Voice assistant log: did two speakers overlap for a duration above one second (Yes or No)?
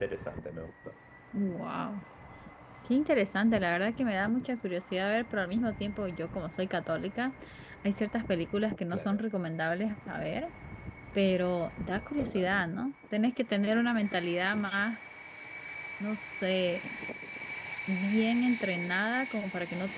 No